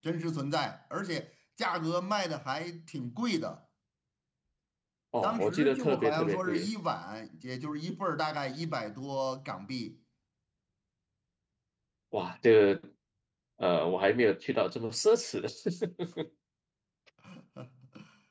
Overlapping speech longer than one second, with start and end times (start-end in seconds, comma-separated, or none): 5.2-6.7